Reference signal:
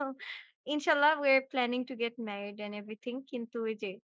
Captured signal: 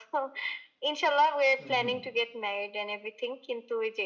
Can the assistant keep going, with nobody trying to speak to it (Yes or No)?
No